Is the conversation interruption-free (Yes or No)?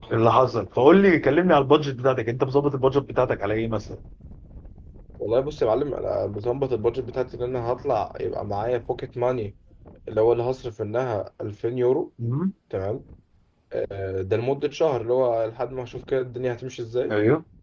Yes